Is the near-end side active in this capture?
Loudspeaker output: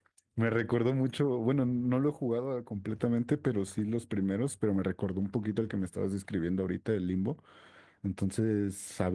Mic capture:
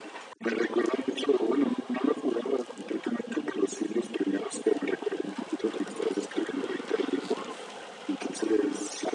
No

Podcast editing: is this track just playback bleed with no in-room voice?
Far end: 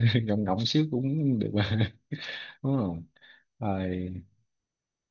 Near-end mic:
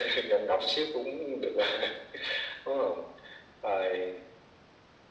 Yes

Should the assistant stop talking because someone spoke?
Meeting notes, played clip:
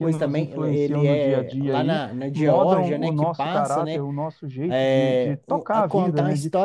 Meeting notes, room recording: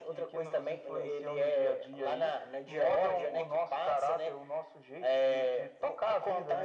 No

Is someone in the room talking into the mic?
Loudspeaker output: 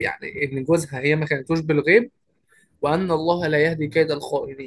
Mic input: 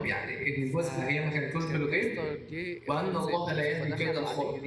Yes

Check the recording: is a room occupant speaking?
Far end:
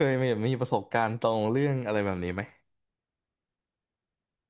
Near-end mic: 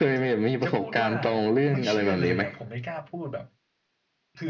Yes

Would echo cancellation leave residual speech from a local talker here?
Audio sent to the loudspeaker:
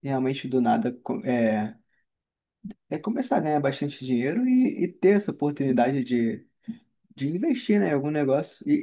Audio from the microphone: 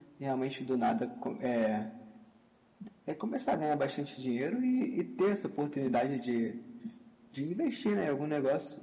No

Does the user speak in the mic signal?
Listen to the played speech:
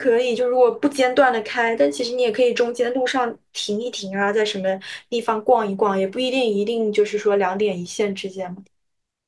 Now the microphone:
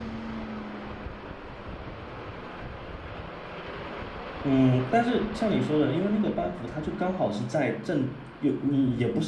Yes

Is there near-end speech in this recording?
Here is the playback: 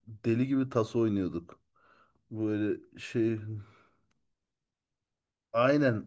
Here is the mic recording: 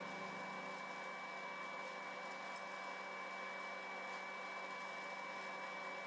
No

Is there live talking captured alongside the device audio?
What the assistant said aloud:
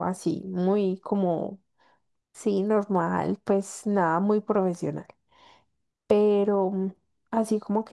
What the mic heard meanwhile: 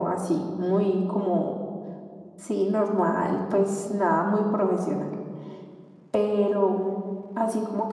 No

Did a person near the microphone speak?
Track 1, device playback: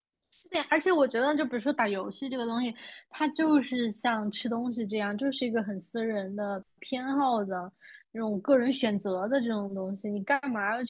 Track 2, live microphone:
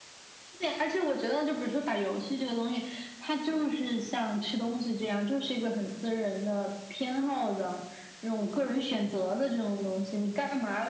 No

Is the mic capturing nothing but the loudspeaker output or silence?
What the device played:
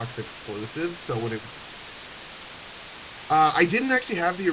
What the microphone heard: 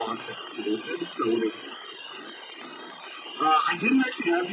Yes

